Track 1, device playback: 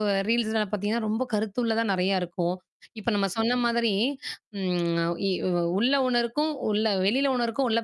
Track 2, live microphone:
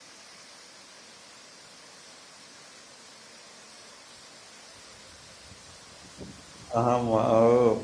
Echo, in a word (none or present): none